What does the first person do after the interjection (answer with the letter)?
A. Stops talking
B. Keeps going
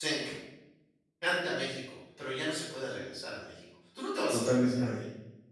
A